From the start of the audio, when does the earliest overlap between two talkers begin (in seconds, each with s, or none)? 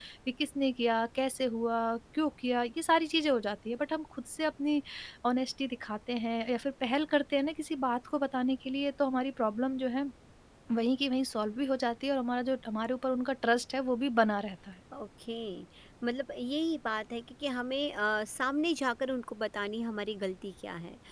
none